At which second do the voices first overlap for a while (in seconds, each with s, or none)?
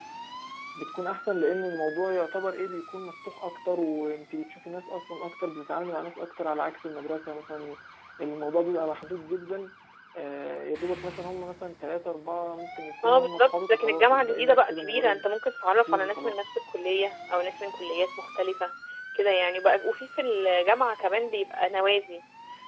13.0 s